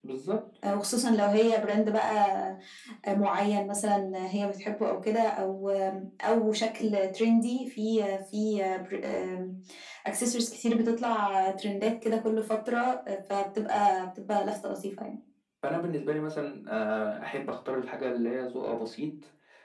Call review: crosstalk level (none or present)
none